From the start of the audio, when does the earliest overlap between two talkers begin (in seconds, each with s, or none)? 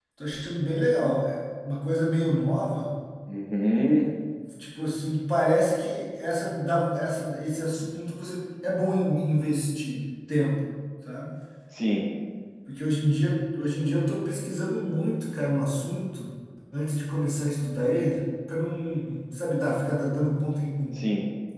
none